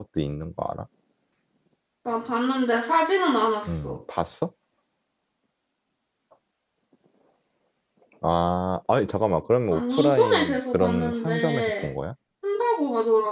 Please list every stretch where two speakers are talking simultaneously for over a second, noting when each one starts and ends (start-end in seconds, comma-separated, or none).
9.7-11.9